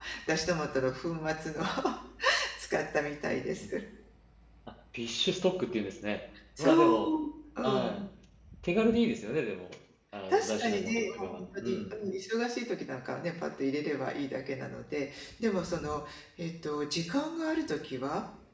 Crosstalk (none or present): present